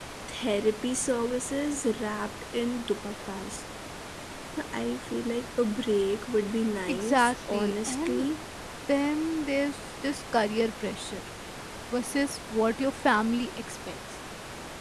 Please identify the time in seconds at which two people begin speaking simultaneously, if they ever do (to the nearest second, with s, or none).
7 s